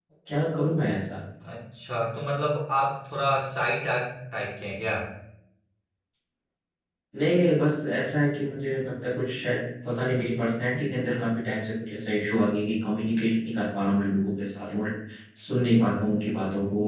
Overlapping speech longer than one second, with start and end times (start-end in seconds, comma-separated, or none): none